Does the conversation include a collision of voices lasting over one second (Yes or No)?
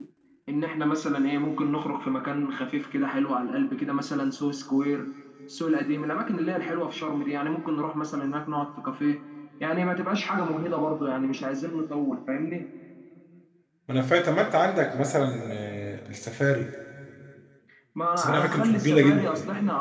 Yes